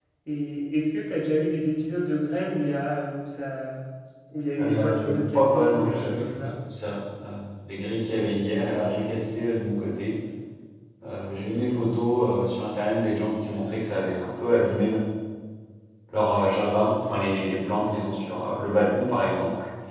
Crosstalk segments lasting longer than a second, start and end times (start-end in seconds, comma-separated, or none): 4.6-6.5